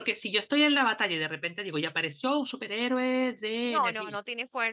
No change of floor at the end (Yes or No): No